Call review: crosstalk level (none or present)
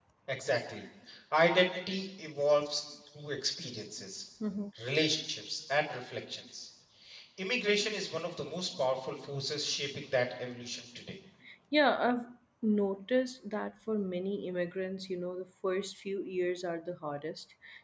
none